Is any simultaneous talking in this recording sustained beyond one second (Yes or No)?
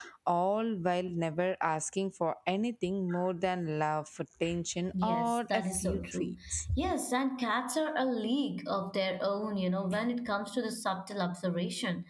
Yes